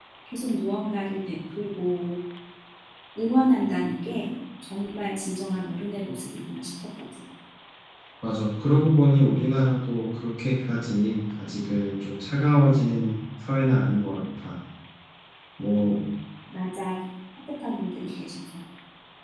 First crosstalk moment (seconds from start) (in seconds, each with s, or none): none